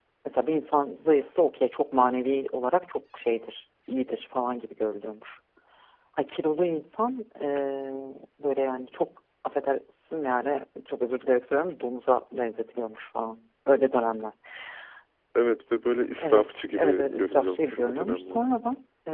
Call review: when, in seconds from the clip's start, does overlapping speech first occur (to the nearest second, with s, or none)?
16 s